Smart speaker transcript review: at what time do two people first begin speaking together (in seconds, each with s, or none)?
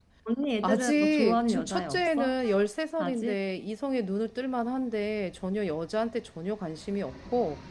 0.6 s